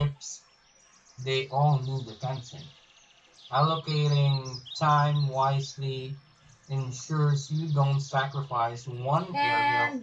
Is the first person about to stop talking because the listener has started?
Yes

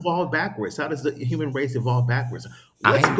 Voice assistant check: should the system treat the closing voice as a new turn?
No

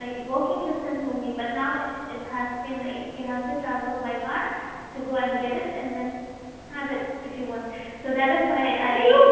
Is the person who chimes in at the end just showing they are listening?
No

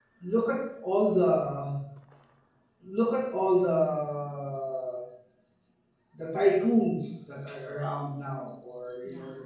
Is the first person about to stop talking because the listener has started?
No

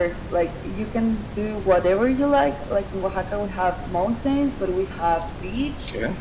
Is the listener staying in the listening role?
Yes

